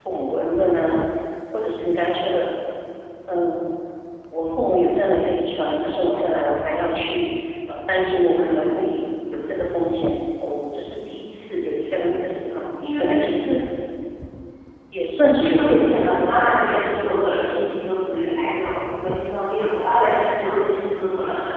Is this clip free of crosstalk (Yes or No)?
No